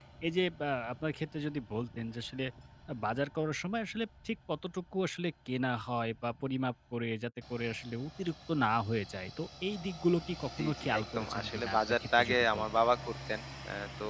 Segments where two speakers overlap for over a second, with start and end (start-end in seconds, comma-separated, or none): 10.6-12.7